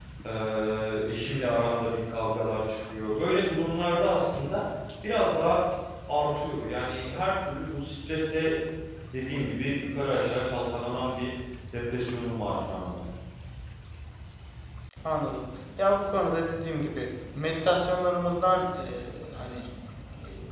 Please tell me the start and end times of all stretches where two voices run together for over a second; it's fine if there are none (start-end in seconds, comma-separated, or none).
none